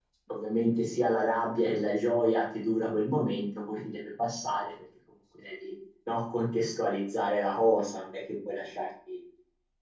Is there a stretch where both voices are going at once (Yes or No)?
No